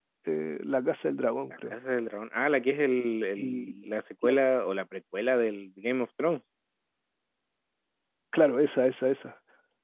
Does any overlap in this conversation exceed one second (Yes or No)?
No